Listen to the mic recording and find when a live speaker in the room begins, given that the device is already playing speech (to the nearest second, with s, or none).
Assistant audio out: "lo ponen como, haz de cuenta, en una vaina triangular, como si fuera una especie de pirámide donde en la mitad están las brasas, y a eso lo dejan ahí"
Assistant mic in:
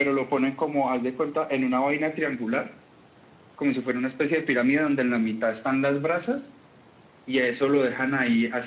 none